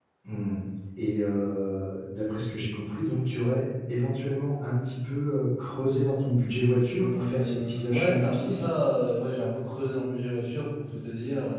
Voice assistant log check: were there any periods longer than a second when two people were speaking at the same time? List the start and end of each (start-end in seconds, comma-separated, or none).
7.0-8.6